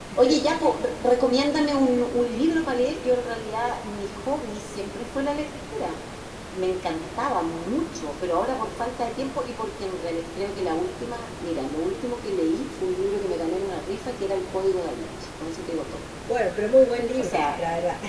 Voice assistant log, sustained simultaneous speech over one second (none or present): none